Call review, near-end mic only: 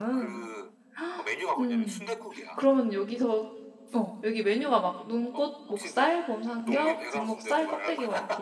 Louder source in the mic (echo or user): user